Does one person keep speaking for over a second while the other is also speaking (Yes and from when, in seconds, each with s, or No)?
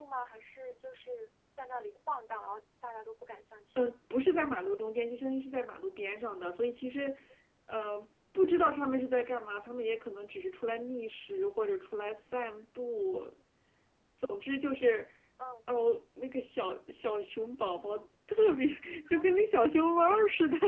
No